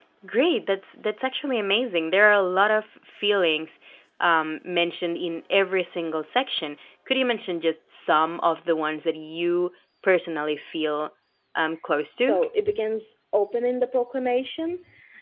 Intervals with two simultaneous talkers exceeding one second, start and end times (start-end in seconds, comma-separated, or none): none